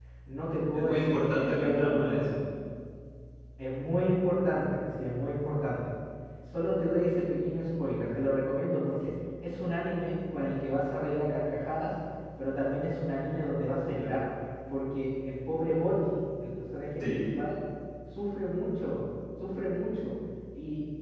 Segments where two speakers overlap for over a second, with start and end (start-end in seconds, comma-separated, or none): 0.7-2.4